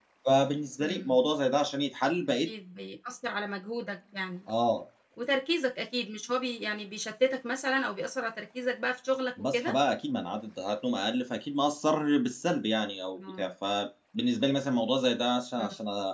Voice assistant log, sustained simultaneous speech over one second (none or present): none